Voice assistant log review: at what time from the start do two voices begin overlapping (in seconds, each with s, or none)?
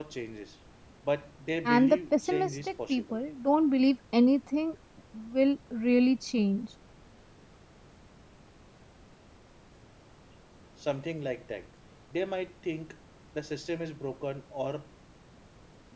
1.6 s